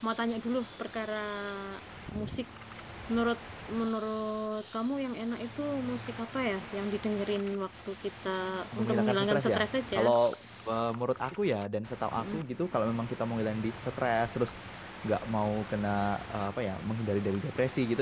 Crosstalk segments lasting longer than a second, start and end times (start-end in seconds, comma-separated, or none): 8.8-10.0